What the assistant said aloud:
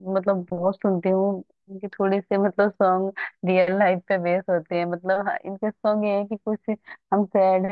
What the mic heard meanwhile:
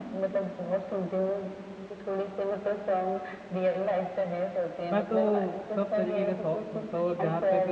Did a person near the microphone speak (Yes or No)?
Yes